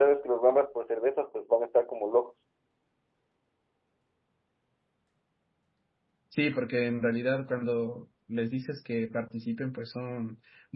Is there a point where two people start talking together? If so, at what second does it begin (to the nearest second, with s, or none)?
none